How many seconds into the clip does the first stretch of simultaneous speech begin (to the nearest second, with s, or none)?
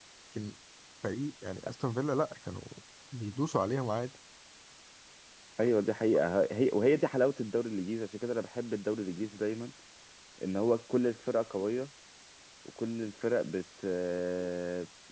none